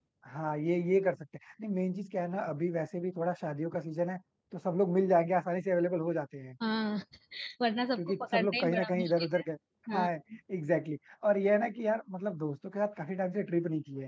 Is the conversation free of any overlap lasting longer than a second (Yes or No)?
No